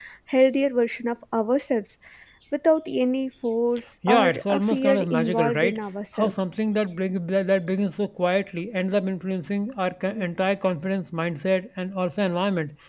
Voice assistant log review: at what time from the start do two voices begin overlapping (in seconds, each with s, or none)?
4.0 s